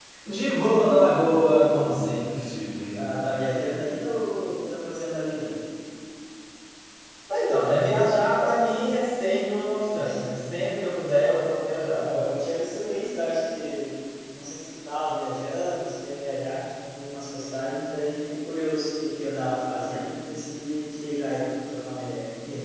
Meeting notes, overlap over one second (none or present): none